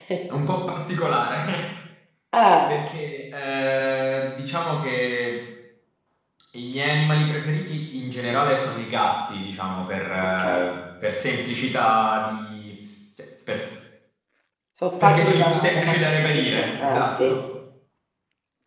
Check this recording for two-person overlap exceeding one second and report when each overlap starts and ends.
15.0-17.3

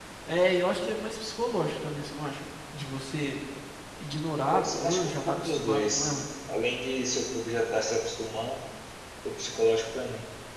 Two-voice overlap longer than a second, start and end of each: 4.5-6.2

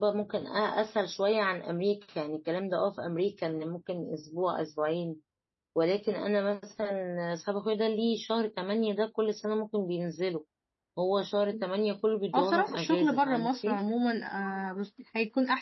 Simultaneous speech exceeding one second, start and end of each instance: 12.3-13.8

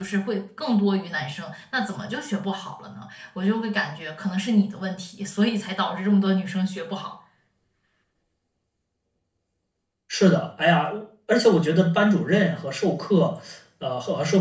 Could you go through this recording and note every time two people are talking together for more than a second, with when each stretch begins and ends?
none

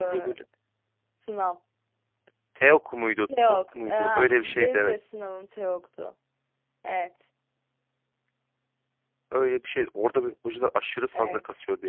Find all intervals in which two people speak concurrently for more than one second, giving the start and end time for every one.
3.4-4.9

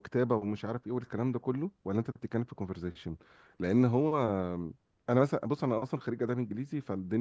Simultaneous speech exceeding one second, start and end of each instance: none

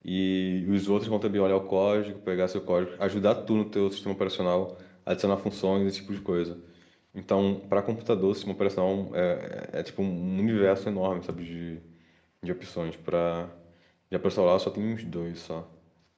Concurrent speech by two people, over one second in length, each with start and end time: none

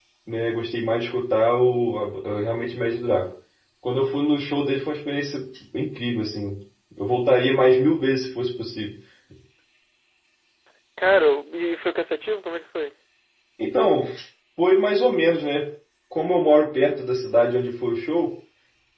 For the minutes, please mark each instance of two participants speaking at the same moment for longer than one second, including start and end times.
none

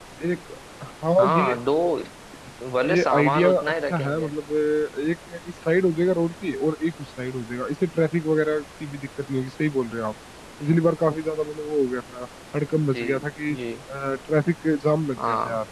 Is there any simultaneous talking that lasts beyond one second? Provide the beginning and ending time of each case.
2.9-4.3

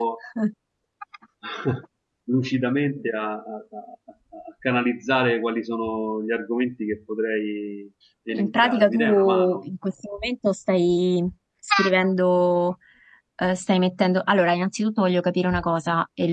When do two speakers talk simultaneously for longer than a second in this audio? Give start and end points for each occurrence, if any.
8.3-9.6

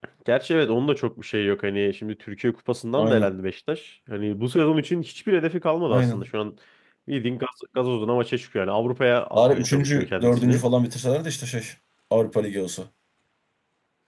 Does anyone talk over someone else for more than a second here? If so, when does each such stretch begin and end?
9.3-10.6

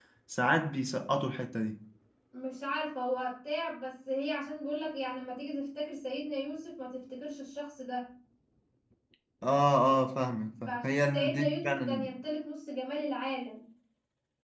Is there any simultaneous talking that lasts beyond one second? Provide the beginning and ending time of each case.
10.7-12.1

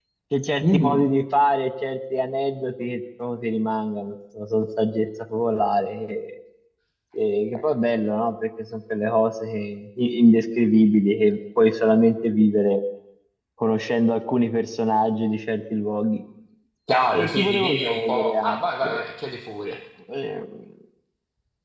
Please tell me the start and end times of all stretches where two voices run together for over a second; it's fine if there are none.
17.1-19.0

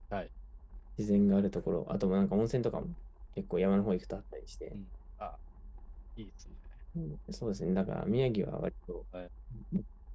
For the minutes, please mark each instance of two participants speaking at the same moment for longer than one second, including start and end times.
none

